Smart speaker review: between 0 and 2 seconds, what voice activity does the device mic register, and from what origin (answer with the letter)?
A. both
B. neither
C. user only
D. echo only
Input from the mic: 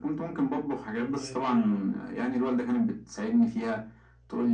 A